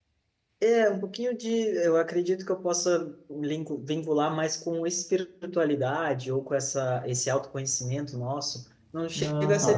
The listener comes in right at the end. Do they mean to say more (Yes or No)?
No